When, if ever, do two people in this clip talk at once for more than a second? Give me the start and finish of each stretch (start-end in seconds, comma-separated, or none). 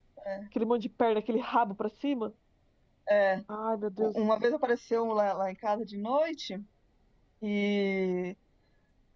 none